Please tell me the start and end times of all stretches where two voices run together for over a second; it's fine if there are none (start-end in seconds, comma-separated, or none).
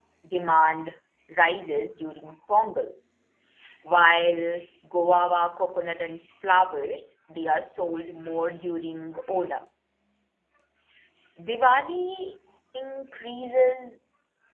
none